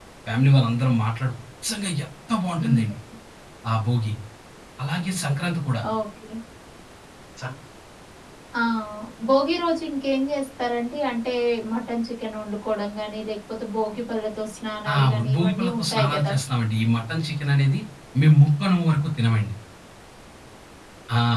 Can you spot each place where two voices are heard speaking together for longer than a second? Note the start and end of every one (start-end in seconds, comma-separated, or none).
14.9-16.3